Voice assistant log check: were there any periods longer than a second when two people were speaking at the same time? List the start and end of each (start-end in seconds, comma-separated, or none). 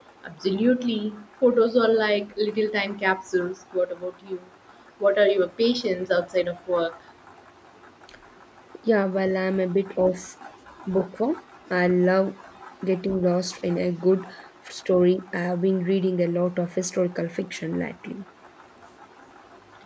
none